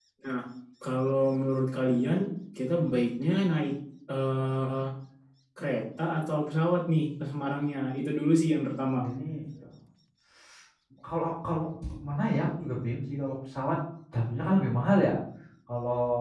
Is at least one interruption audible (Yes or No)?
No